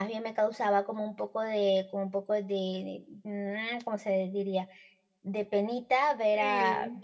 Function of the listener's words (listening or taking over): listening